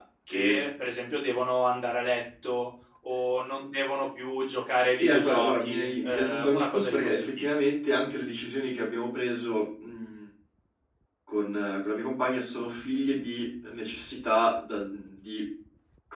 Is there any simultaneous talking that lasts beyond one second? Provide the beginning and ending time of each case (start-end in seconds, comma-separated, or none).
5.0-7.5